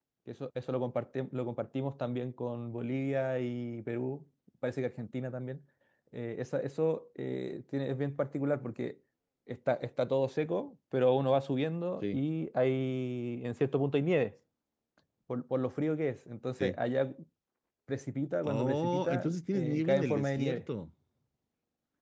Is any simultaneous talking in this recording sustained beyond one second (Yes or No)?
Yes